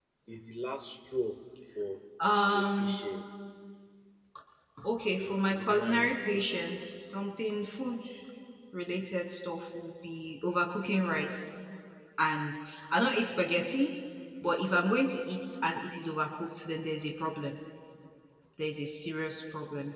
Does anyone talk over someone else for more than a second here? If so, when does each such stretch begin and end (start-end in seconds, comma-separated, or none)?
5.2-6.5